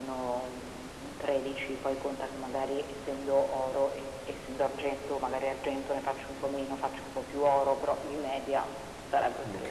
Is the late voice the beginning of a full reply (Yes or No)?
Yes